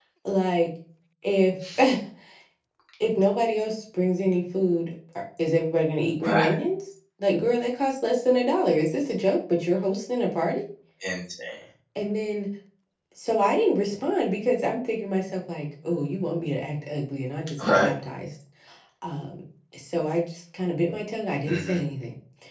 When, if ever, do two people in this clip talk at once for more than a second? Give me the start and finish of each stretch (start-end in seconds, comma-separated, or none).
none